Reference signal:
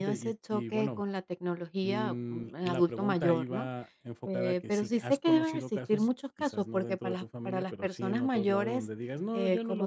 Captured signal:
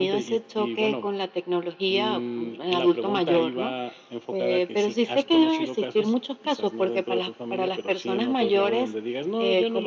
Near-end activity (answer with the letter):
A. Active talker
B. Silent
B